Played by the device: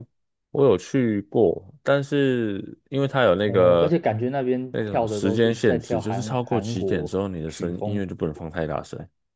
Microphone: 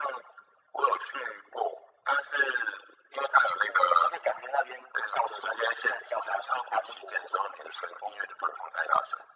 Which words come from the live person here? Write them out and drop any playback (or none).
none